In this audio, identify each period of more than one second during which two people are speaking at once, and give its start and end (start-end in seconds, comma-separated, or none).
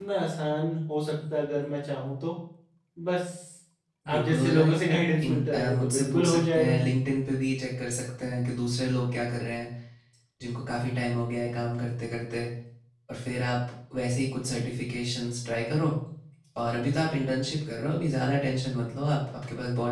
4.1-6.8